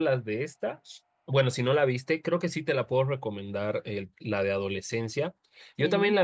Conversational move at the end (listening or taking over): listening